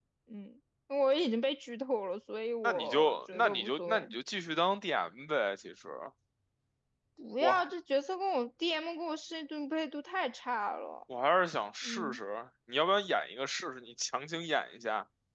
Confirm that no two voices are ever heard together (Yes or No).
No